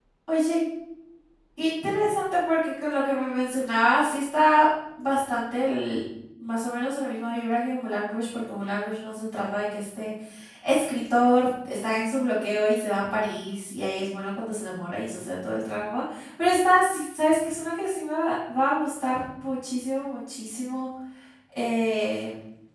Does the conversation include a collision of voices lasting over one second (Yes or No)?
No